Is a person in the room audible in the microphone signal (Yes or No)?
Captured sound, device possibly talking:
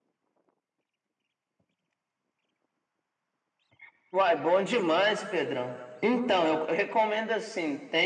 No